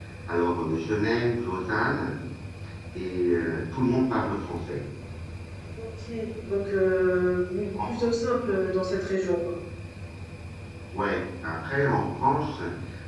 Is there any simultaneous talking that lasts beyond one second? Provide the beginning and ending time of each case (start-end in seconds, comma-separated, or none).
none